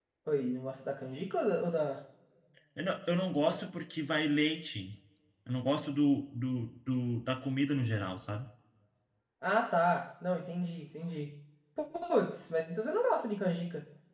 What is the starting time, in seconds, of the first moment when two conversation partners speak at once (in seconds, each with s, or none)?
none